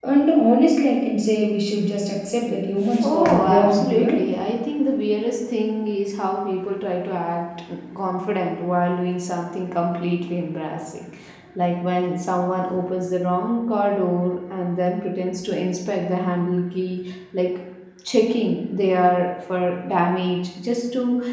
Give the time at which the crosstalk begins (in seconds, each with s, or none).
2.9 s